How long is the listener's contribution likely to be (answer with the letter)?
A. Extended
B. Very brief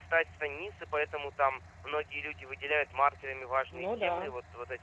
B